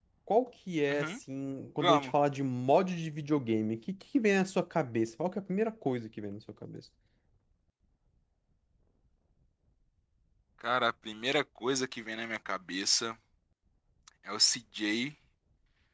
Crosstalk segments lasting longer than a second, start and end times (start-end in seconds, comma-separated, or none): none